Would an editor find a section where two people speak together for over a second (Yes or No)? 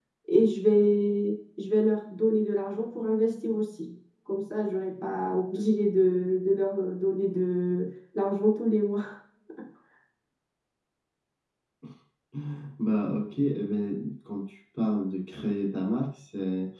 No